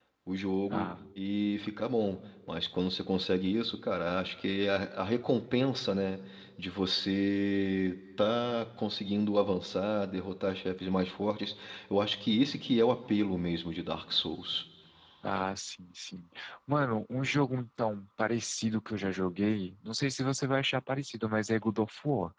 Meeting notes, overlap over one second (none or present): none